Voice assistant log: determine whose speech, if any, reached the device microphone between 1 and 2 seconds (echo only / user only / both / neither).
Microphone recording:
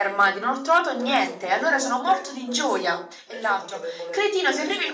both